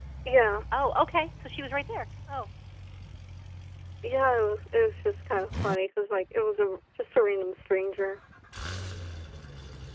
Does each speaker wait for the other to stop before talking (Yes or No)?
Yes